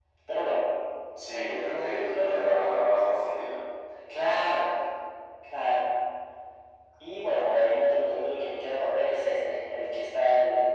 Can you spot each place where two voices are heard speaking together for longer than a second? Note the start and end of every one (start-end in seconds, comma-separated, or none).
1.3-2.5